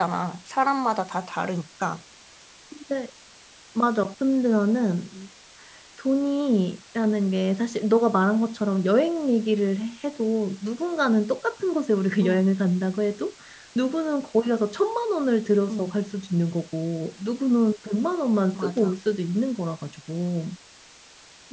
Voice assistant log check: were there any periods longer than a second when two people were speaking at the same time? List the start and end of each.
none

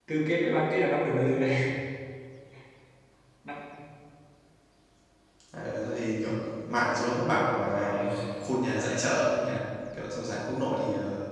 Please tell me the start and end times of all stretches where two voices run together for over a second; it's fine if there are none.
none

